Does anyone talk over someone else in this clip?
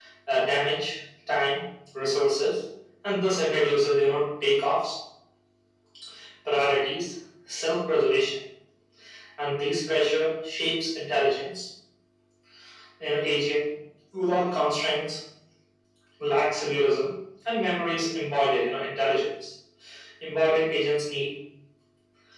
No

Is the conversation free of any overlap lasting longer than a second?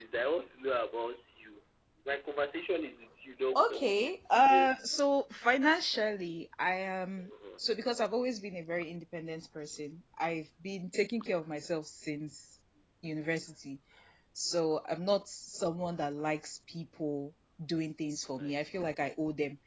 No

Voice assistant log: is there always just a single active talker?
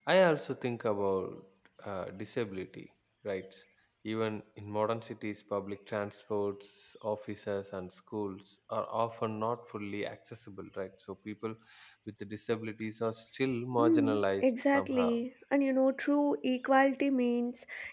No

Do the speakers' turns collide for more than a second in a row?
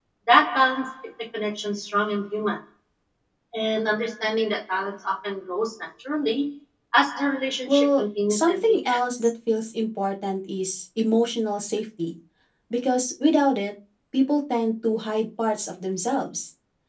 Yes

